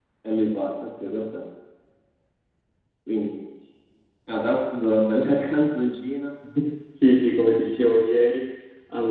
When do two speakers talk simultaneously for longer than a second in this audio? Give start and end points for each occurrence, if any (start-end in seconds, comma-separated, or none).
none